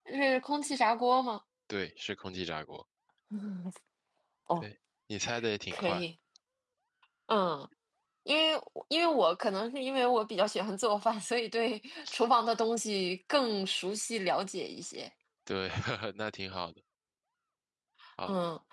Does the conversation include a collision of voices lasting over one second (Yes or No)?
No